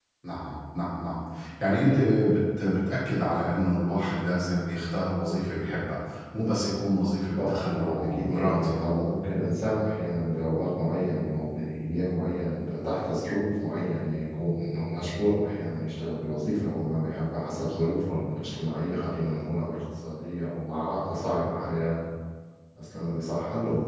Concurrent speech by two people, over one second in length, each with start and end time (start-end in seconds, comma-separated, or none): 7.3-8.8